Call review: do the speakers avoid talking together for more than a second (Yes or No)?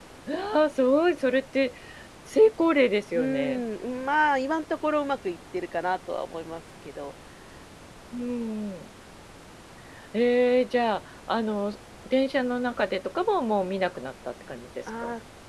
Yes